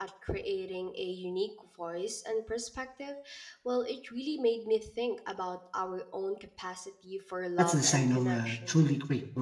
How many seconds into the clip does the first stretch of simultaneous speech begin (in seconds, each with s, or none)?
7.6 s